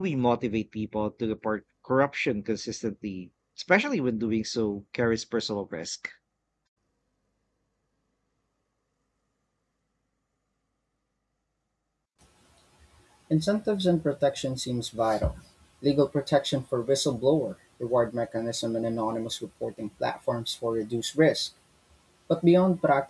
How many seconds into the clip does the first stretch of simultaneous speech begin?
none

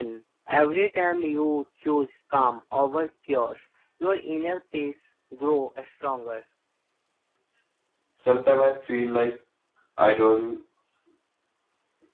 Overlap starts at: none

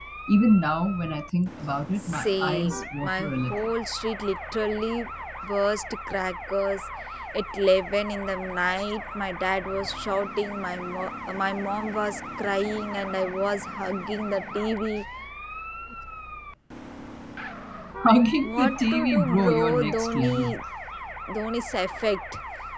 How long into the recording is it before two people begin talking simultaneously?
2.0 s

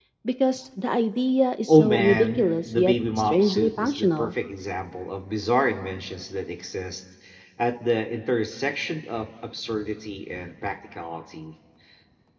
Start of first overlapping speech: 1.7 s

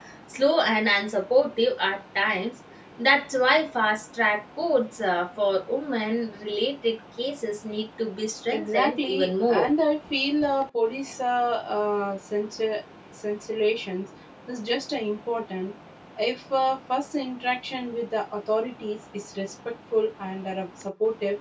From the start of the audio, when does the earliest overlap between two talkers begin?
8.5 s

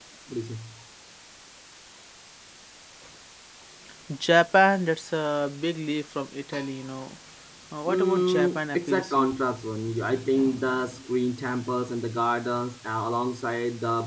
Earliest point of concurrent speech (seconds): 7.9 s

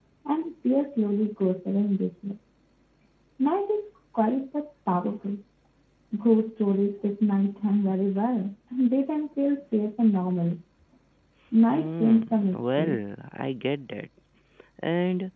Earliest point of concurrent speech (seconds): 11.7 s

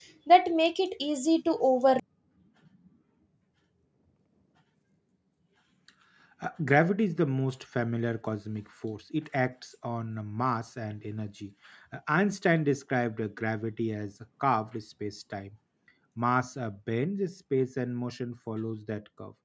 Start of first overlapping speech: none

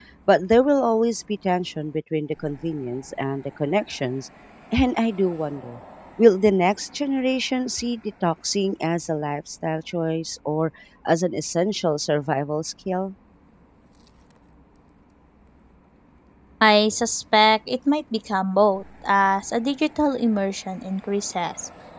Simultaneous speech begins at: none

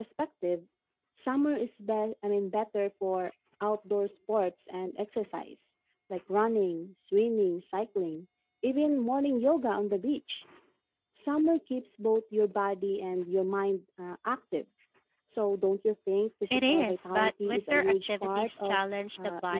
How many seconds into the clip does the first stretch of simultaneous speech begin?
16.5 s

